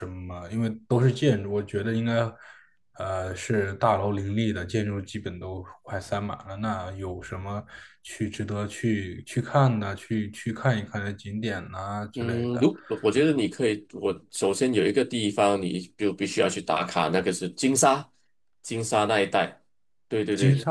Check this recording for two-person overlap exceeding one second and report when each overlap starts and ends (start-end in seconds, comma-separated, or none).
none